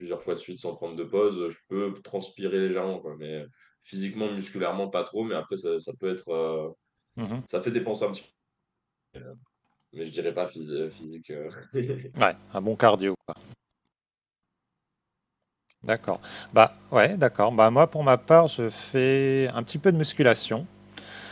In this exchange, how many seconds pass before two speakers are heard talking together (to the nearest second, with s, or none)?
none